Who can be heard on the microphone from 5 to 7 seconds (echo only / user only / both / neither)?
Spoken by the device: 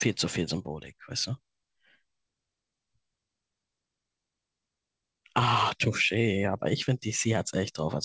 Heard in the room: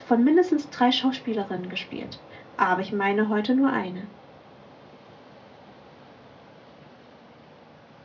neither